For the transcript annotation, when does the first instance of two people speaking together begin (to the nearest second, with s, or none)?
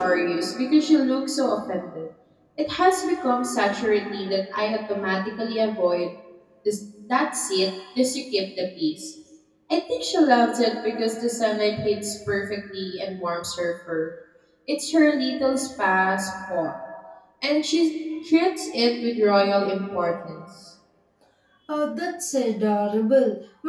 none